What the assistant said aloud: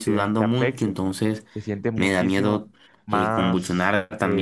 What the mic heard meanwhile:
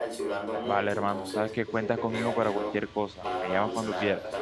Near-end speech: present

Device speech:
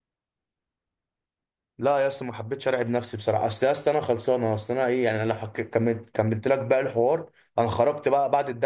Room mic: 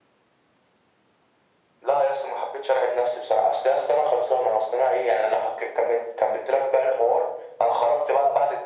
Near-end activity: none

